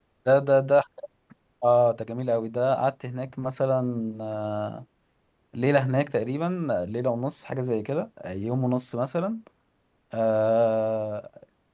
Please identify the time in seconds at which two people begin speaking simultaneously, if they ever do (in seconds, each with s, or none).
none